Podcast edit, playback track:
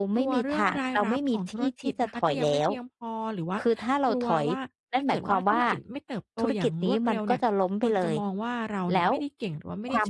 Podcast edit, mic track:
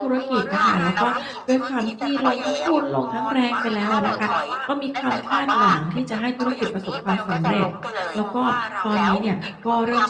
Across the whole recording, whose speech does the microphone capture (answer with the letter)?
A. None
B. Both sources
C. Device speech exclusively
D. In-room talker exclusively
B